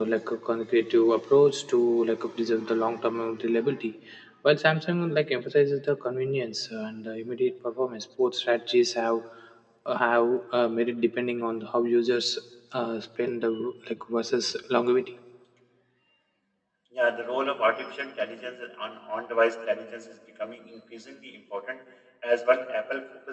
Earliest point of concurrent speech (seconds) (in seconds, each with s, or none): none